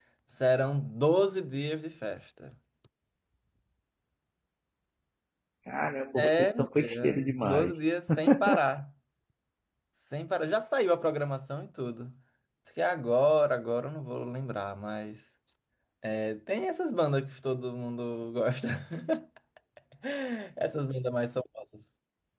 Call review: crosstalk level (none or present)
present